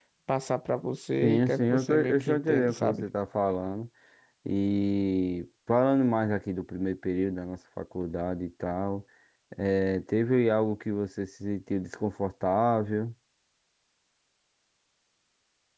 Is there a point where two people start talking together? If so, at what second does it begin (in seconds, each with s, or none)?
1.2 s